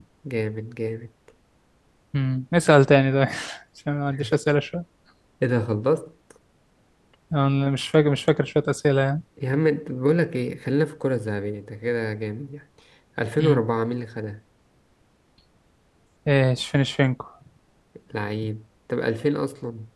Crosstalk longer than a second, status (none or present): none